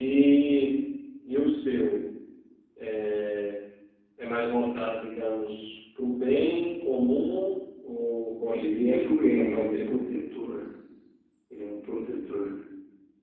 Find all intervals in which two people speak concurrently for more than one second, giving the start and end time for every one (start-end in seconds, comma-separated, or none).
8.5-10.1